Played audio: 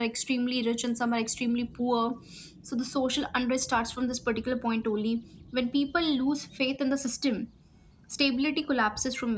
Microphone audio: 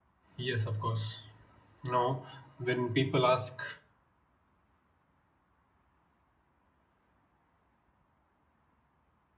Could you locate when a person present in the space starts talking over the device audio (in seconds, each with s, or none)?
0.3 s